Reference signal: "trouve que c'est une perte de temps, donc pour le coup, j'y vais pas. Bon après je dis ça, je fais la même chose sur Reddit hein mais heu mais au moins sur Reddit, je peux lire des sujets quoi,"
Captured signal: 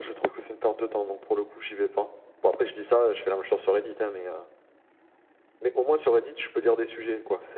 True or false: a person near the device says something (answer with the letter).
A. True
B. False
B